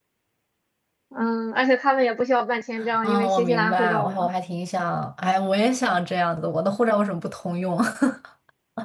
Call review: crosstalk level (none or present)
present